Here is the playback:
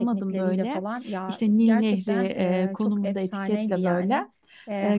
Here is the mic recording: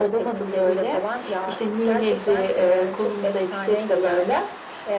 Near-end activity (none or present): none